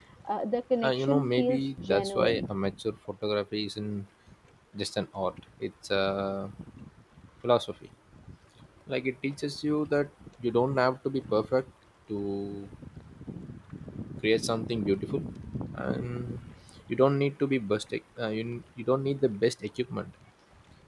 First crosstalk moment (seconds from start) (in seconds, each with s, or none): 0.8 s